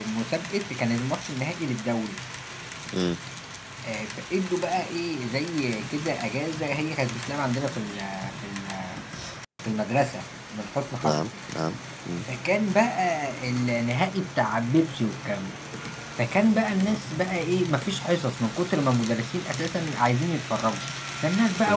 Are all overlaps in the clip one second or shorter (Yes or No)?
Yes